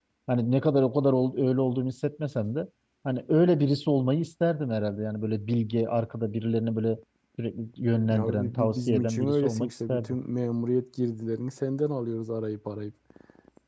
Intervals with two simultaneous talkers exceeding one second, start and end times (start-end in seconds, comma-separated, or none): 8.1-10.2